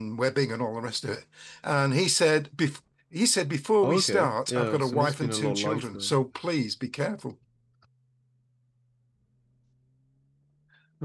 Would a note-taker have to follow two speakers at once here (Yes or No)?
Yes